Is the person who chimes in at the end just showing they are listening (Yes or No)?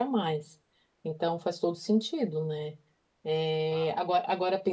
Yes